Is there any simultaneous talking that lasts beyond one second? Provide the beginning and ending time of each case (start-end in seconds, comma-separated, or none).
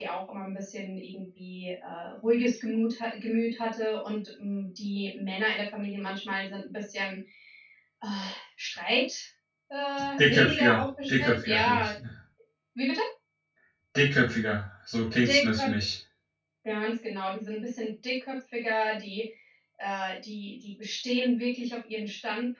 10.2-11.9